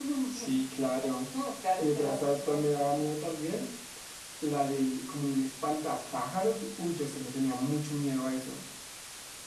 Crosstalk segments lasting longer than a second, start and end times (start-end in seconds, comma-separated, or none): 1.8-3.1